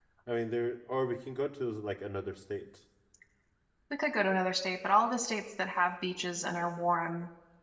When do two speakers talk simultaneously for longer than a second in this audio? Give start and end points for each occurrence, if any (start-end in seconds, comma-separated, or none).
none